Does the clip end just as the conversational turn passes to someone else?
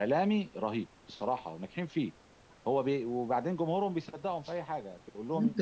Yes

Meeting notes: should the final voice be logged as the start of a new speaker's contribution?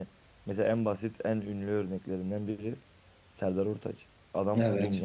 No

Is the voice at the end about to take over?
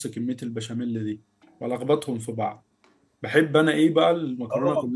Yes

